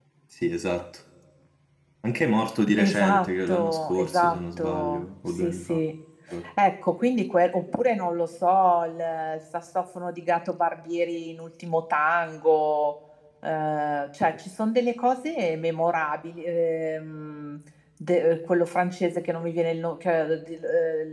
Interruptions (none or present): present